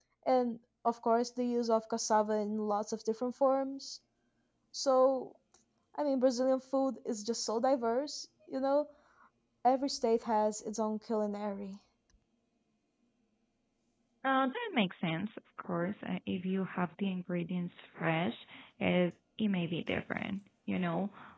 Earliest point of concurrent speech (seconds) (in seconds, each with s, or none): none